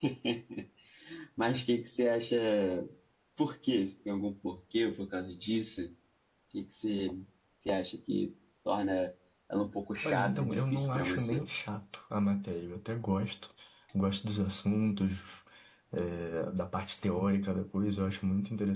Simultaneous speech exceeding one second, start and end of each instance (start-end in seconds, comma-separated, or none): 10.0-11.4